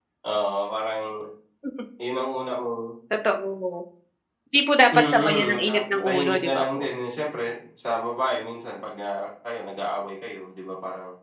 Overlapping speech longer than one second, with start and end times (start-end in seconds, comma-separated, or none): 4.9-6.8